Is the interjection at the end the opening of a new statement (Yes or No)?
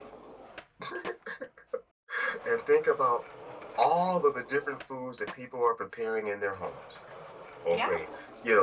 No